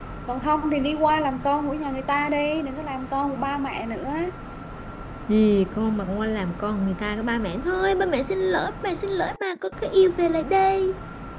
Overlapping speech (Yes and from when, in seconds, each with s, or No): No